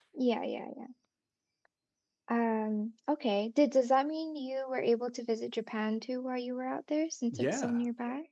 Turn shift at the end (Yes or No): Yes